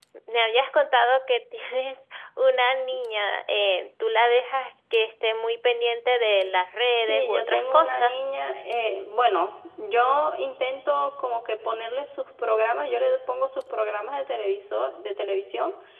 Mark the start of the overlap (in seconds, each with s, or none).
6.9 s